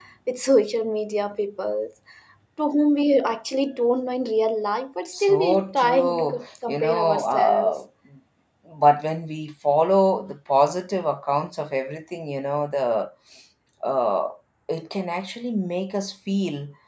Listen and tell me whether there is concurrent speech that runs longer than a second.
Yes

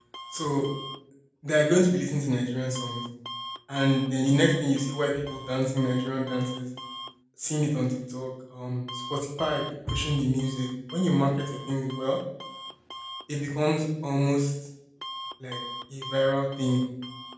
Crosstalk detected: No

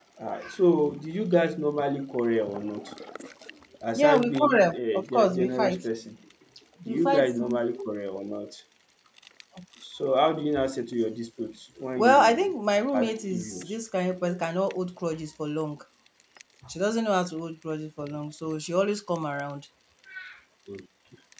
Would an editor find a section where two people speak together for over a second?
Yes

